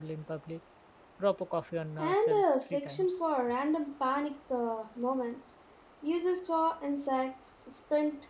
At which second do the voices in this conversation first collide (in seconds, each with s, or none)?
2.0 s